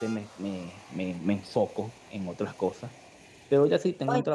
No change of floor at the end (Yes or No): Yes